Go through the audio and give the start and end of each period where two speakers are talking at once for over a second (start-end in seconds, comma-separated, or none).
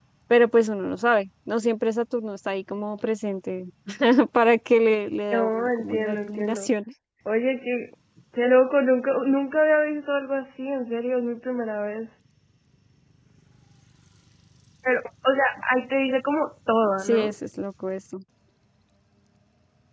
5.3-6.7